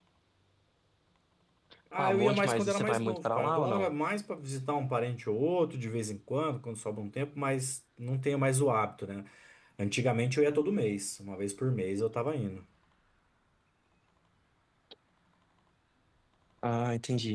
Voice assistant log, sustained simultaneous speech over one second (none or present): present